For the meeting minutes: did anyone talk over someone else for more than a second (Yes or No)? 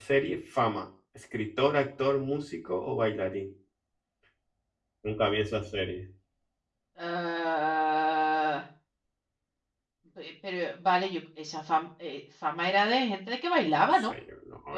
No